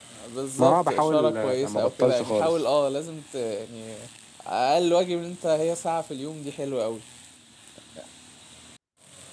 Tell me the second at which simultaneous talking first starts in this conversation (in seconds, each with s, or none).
0.6 s